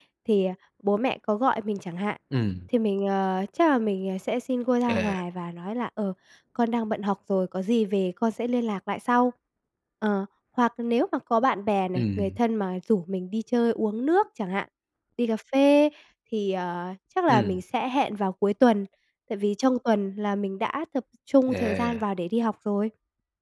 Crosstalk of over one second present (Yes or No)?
No